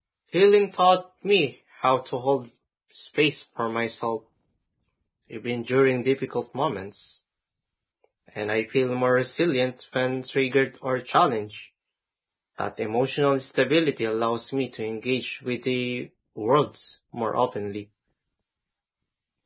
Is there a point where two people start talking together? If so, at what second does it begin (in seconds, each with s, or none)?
none